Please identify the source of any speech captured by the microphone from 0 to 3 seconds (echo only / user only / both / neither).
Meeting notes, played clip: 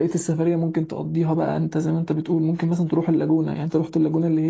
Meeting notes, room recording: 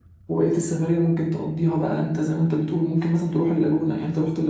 echo only